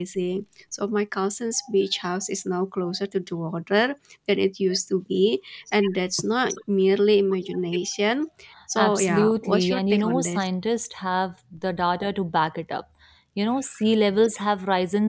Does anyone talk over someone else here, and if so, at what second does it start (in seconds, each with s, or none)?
8.8 s